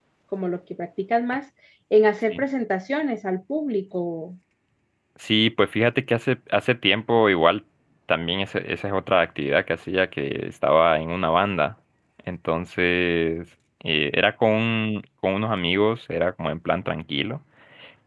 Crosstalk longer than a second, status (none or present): none